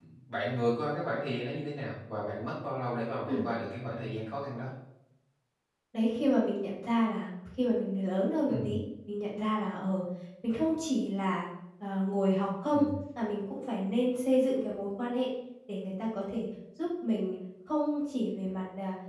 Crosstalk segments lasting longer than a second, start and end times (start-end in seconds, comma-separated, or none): none